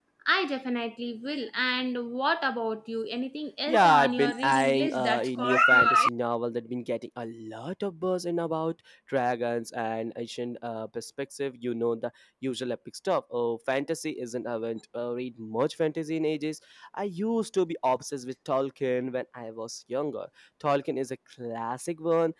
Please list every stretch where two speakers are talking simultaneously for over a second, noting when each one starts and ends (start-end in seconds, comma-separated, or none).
3.7-6.1